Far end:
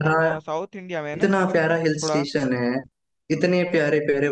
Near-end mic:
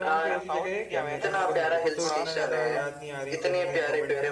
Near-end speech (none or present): present